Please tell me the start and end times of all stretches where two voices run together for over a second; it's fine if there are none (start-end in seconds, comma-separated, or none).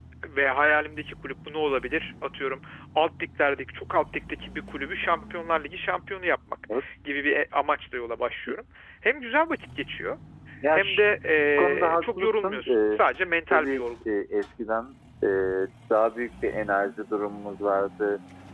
11.6-13.0